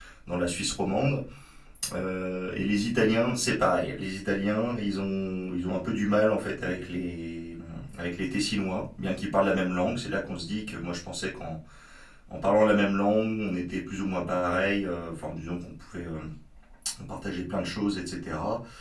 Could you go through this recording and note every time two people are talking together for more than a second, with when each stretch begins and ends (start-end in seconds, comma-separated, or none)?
none